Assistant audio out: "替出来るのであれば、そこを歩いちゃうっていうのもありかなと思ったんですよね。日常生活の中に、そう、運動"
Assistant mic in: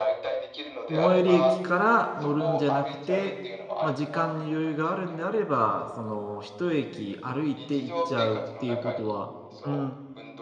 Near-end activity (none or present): present